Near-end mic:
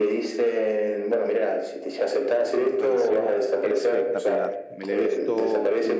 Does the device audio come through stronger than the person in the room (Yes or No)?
Yes